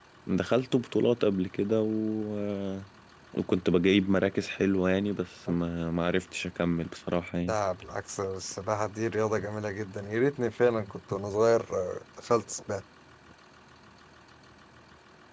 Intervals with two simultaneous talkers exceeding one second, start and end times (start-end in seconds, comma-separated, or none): none